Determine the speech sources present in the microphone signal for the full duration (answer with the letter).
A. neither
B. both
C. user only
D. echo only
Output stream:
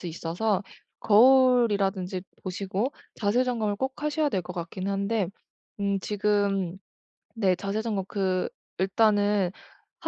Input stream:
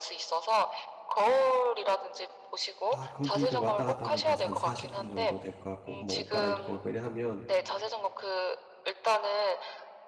B